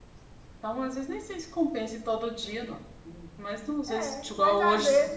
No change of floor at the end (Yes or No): No